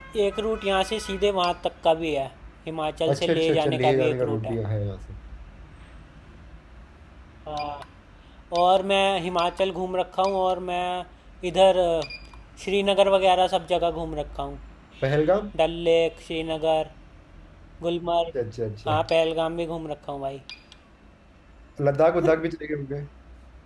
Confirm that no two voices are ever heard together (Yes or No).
No